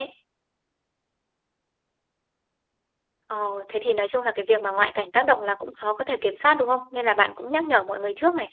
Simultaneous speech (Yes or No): No